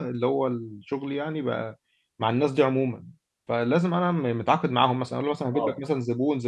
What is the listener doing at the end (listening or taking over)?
listening